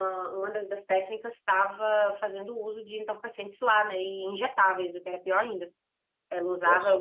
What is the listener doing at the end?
listening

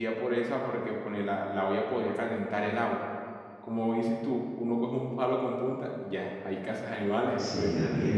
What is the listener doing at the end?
taking over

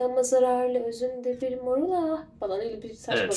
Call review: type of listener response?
taking over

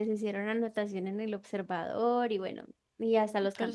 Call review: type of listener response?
listening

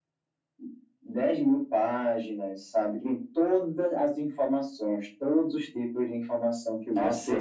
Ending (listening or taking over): taking over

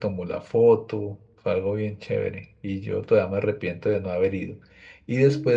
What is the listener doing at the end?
listening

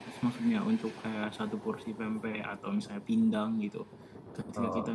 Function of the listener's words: listening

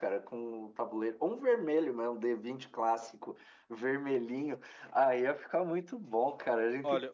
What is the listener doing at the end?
taking over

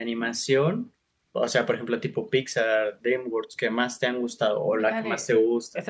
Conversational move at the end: taking over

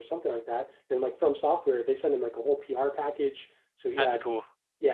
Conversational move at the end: listening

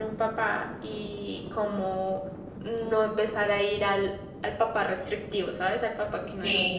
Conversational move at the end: taking over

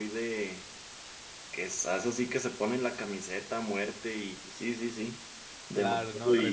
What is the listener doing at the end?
taking over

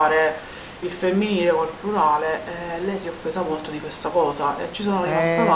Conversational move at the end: taking over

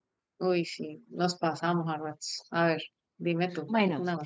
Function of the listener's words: taking over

